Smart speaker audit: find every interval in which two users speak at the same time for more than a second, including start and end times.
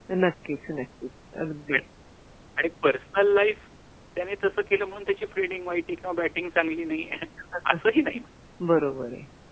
none

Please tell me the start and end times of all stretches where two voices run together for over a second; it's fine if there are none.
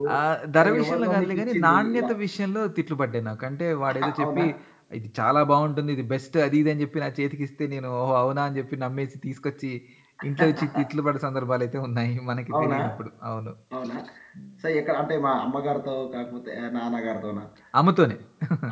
0.6-2.1

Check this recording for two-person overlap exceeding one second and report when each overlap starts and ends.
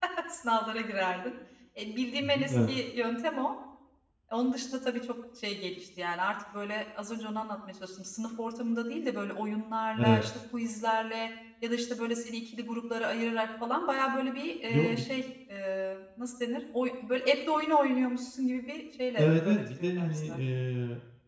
19.2-20.4

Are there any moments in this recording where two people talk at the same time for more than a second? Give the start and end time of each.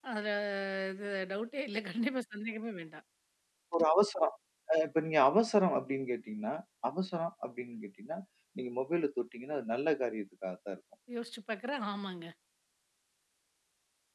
none

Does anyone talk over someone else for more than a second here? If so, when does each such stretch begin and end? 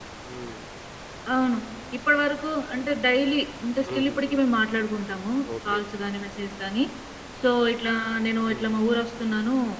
none

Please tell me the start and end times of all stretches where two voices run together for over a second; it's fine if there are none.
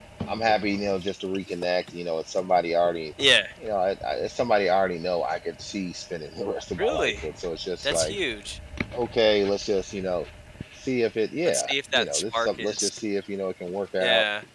11.4-12.9

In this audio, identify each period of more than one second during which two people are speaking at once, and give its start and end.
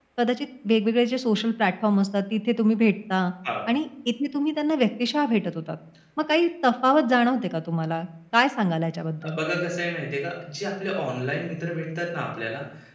none

